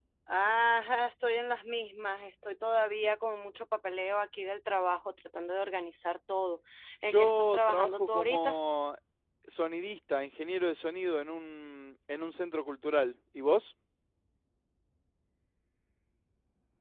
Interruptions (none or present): present